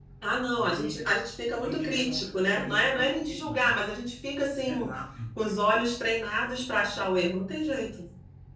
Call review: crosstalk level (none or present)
present